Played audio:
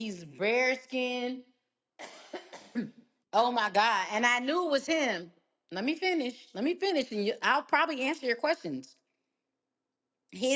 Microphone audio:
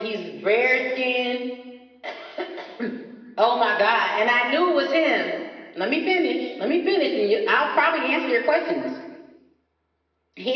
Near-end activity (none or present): none